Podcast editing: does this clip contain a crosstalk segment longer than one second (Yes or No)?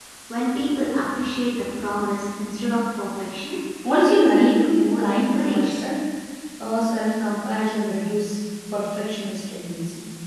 Yes